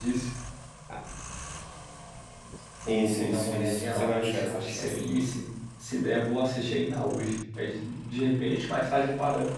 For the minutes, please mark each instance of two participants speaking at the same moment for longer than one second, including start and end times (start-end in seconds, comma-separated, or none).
2.9-5.1